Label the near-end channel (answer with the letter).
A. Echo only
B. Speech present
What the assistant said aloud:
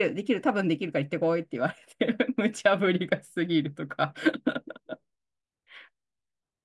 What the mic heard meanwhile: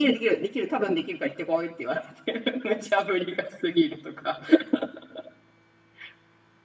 A